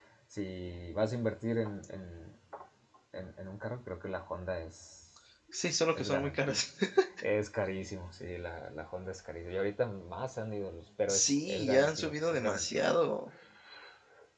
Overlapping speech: Yes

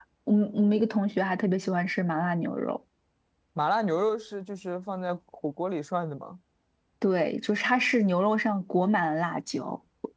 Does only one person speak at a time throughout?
Yes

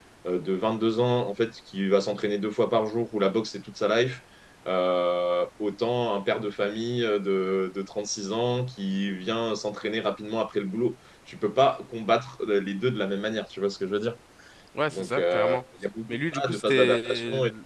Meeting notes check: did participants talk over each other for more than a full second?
Yes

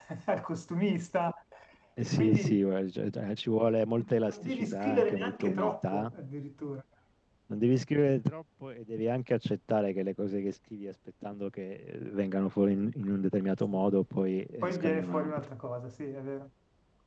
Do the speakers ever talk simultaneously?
Yes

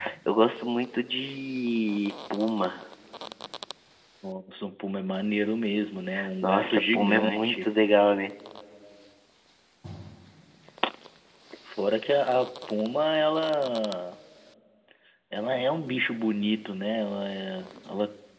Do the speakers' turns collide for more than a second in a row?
Yes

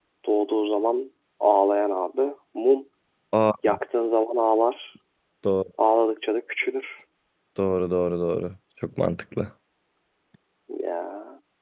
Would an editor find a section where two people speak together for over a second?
No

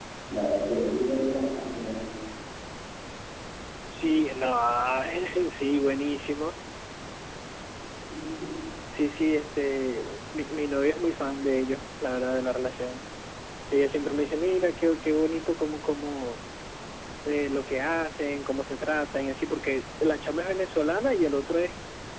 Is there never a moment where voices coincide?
Yes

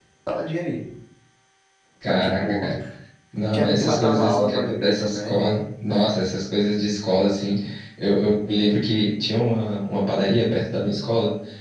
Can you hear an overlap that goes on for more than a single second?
Yes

